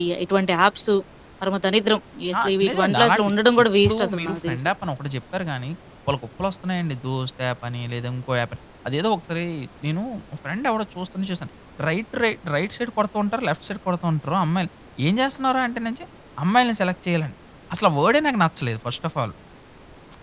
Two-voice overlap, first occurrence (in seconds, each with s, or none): 2.3 s